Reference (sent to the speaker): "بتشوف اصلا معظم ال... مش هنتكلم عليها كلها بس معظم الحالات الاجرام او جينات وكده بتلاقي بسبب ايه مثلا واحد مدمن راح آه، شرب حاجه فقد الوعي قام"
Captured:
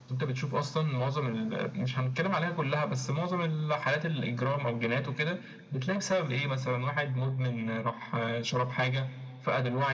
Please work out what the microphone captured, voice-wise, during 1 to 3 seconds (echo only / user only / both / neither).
echo only